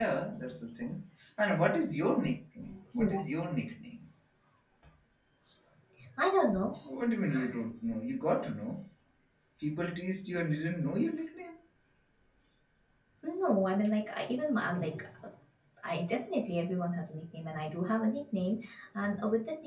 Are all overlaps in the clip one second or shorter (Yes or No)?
Yes